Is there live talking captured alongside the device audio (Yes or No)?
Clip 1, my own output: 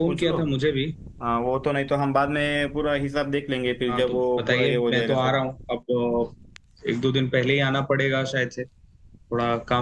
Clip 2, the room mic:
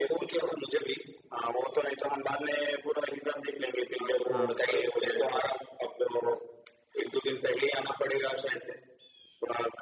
Yes